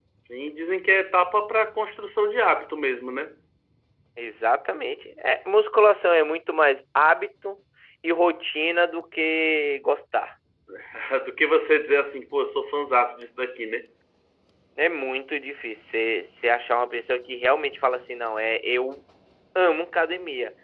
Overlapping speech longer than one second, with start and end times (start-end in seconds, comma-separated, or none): none